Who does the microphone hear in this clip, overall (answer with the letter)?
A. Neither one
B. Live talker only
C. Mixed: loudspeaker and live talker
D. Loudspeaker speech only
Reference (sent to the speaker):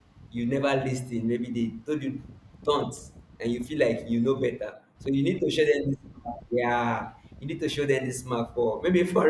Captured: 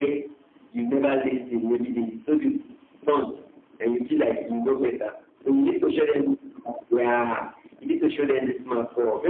D